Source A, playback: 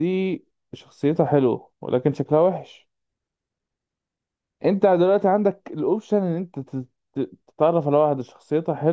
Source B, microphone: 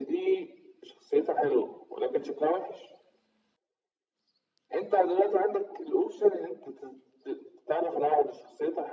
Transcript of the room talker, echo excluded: none

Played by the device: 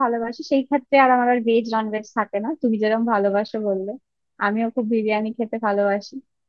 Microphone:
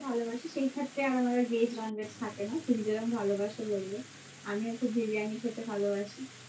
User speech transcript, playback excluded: none

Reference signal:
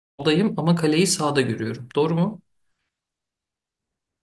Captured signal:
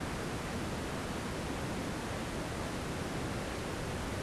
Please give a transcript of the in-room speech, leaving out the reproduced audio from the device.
none

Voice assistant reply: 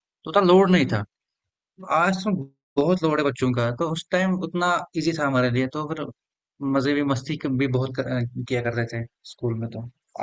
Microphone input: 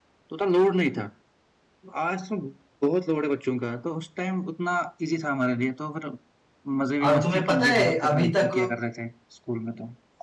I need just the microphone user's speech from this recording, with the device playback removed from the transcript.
और तुम्हें पता है अभी तक

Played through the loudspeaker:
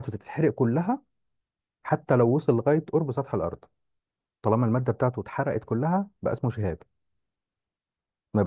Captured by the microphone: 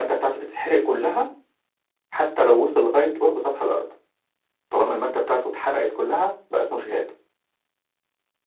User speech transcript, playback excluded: none

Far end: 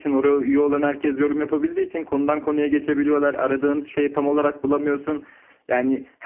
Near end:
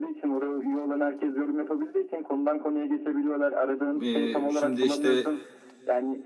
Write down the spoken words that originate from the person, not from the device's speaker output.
Ee, şimdi işte

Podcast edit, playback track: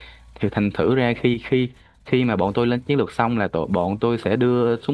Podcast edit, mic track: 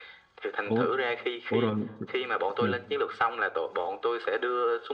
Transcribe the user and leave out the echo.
ủa ủa rồi ừ

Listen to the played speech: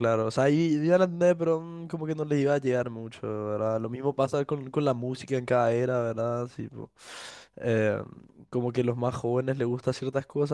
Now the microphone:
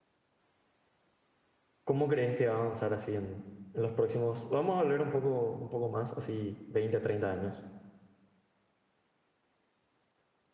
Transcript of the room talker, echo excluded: ¿Cómo crees que va a avanzar así en, en los próximos? Vamos a hablar un poco, un poco más, así veinte, treinta años.

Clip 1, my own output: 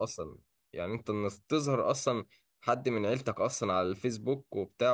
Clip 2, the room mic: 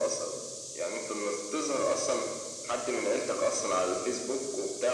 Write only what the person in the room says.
none

